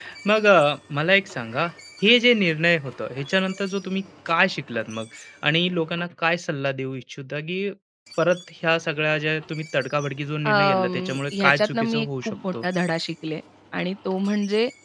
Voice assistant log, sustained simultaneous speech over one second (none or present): present